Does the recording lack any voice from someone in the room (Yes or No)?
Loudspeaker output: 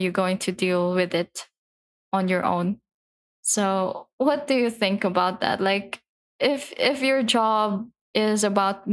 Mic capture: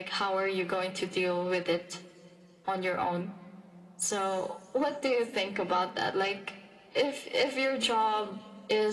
Yes